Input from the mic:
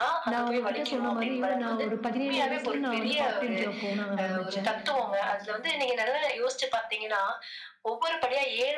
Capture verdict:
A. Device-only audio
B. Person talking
B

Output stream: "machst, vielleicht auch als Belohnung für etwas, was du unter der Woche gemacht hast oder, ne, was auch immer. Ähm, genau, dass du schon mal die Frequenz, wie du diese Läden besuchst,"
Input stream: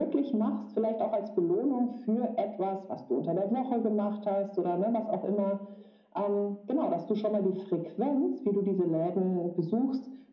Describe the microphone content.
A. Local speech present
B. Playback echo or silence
B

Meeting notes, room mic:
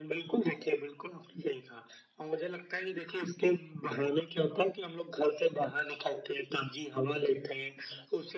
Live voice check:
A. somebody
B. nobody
B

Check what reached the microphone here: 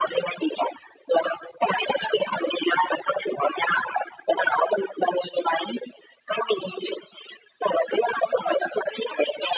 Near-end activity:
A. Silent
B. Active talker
A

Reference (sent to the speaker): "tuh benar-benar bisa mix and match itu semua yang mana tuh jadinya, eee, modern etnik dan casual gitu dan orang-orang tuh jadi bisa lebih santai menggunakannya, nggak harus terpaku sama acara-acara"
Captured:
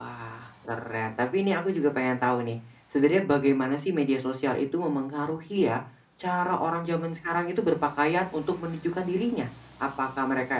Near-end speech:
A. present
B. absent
A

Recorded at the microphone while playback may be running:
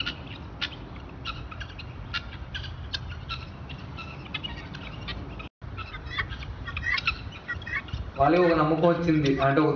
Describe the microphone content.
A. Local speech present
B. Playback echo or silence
A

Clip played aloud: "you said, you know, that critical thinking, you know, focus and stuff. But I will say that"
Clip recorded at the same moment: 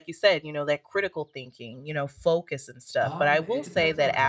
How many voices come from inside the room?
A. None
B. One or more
B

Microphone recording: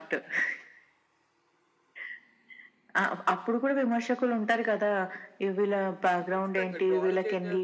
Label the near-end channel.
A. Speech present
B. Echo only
A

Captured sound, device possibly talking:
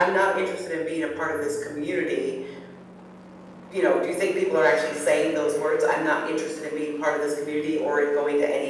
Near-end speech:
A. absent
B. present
A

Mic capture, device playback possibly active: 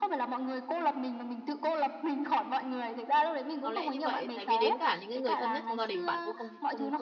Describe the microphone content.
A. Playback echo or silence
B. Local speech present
B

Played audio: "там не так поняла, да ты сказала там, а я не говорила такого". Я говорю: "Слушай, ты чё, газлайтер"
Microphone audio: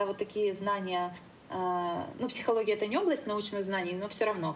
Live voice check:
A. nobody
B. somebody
B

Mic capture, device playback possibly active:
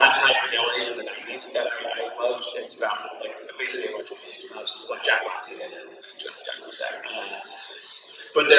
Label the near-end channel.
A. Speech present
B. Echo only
B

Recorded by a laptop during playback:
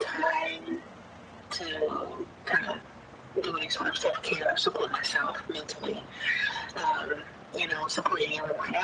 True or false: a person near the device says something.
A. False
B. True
A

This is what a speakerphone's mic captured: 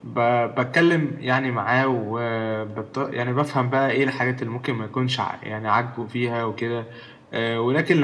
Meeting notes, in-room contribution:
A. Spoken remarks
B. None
B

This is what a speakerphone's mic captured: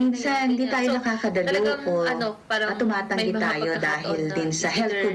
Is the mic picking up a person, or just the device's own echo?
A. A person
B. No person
B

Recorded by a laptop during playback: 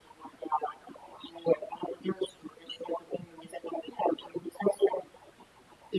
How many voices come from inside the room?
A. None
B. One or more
A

